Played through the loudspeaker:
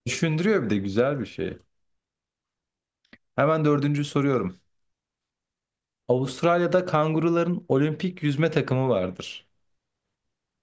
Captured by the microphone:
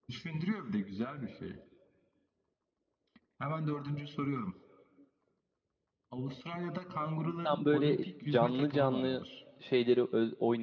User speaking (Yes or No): Yes